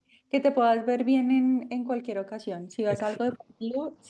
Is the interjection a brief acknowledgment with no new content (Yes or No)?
Yes